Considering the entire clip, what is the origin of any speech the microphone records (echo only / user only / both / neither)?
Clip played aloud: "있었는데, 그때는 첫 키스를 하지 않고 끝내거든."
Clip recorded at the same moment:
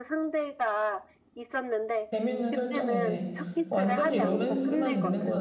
both